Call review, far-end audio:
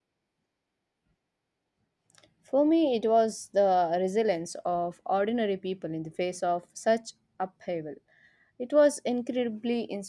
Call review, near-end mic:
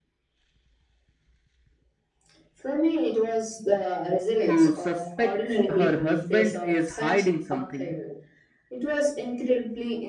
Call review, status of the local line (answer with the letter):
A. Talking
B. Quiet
A